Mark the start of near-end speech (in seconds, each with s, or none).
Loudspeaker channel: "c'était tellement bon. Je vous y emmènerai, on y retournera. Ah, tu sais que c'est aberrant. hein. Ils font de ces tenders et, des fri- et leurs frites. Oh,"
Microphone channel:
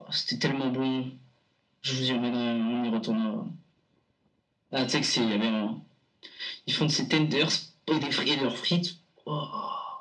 none